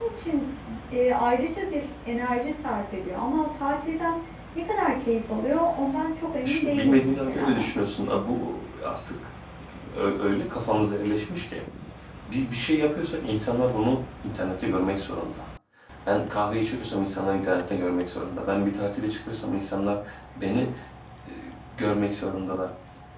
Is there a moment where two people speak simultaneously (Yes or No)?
Yes